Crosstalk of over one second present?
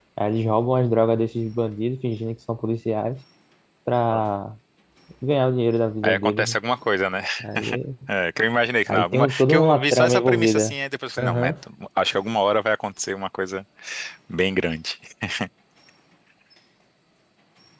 Yes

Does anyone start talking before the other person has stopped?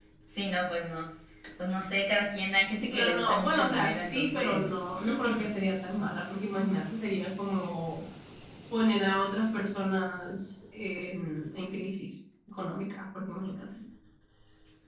Yes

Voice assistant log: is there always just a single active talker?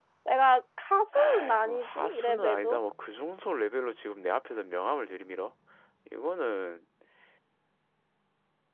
No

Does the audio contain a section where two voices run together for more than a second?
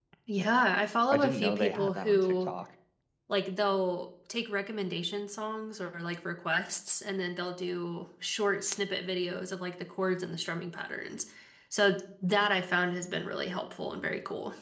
Yes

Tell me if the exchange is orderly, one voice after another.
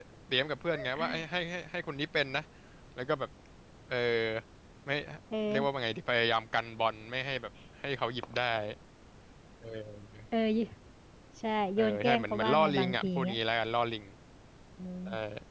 No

